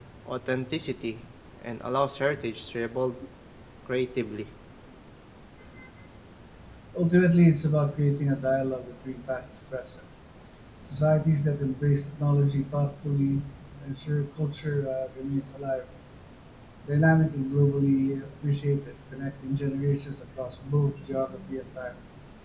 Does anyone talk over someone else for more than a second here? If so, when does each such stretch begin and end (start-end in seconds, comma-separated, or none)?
none